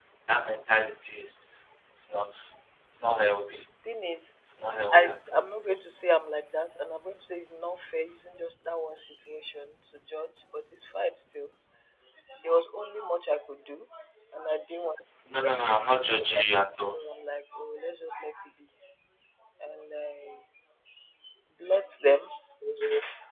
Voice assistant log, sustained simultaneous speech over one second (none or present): none